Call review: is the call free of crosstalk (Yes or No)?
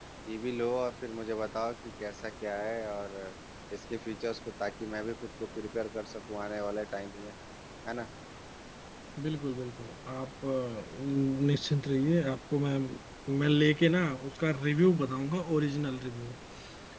Yes